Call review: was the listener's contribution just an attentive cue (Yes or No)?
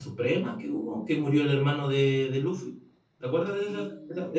No